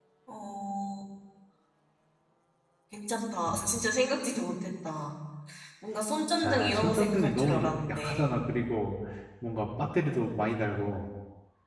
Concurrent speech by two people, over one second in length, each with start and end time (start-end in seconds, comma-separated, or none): 6.4-8.3